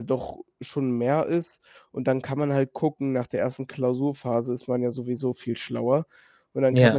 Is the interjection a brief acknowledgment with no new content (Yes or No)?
Yes